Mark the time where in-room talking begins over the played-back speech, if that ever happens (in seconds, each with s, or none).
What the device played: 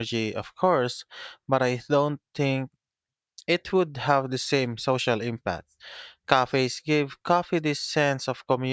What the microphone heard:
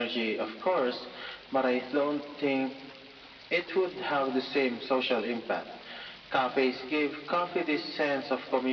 none